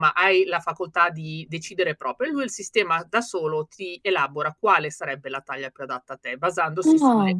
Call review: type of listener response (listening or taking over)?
listening